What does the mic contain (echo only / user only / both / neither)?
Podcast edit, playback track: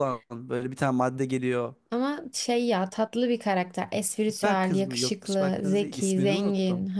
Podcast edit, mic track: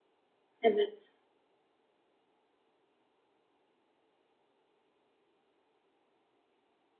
user only